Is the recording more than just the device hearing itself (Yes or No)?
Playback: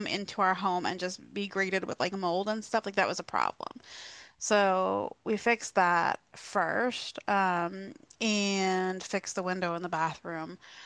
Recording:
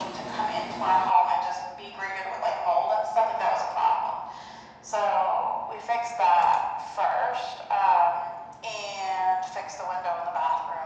No